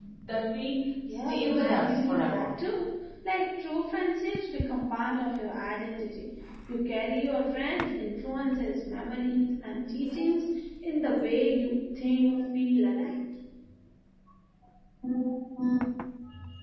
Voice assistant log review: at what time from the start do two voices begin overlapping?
1.3 s

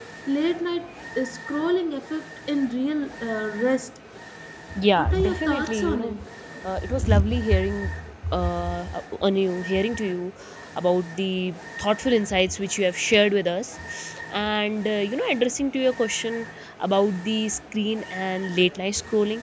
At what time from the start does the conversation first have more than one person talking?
5.0 s

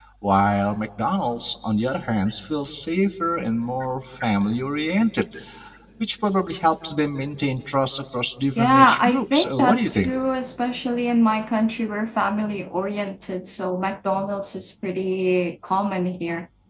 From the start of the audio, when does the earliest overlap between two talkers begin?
8.6 s

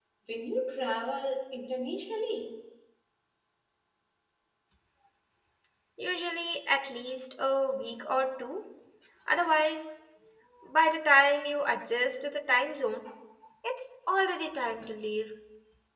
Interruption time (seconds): none

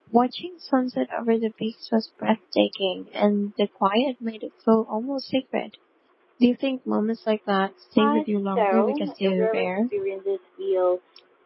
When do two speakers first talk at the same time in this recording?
8.0 s

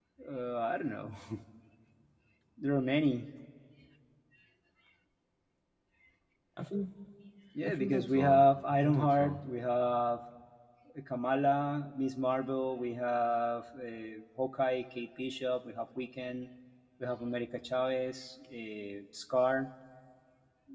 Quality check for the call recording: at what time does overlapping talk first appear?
7.7 s

